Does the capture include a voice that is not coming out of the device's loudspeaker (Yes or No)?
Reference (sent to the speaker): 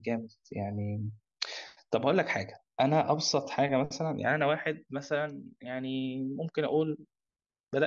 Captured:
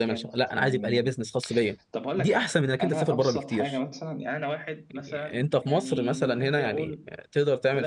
Yes